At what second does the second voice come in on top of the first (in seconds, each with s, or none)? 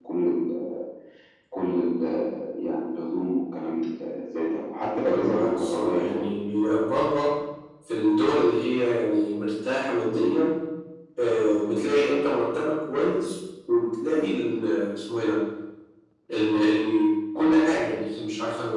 5.0 s